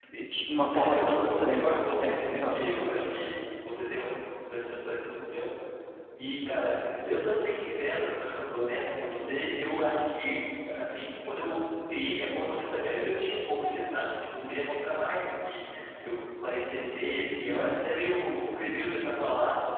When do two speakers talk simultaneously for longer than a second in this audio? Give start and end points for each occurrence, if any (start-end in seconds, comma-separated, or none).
0.8-2.8